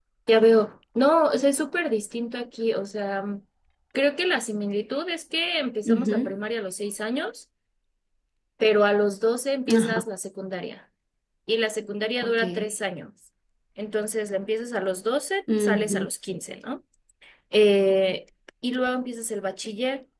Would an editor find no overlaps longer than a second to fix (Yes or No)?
Yes